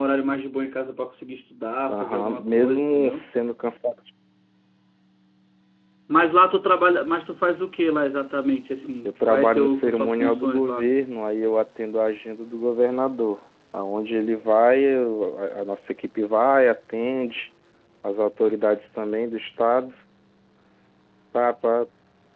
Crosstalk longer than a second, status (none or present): present